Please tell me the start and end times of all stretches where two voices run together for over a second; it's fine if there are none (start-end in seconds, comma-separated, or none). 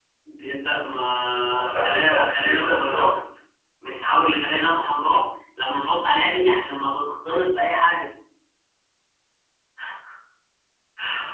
1.6-3.1